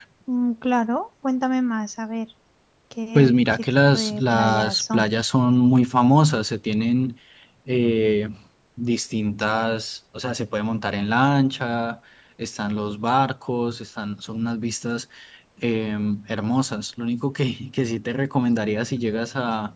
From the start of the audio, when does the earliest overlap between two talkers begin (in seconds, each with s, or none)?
3.1 s